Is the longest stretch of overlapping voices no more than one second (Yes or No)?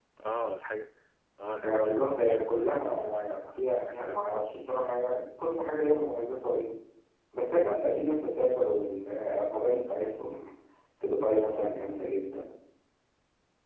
No